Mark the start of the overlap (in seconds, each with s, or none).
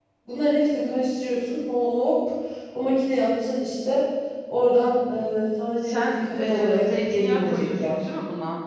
5.8 s